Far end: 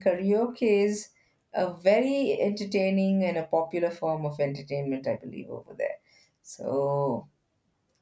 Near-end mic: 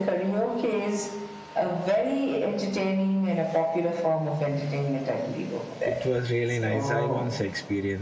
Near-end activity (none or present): present